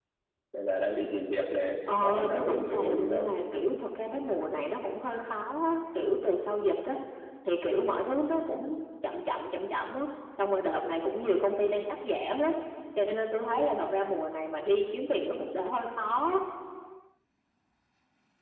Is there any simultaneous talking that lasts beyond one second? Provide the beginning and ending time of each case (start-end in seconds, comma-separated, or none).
2.0-3.3